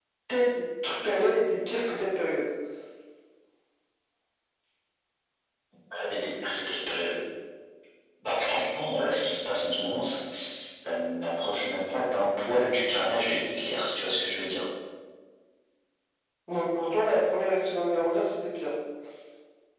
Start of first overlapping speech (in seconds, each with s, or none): none